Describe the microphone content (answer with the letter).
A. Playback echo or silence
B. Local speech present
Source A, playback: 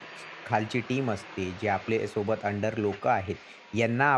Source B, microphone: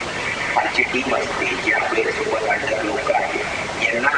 A